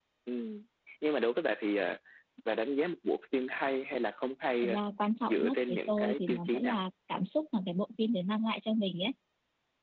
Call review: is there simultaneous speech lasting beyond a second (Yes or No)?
Yes